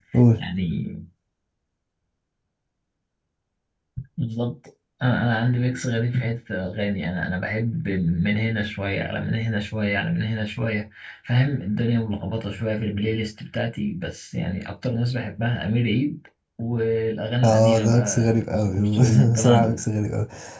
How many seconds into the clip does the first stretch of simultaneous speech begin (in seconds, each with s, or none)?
17.4 s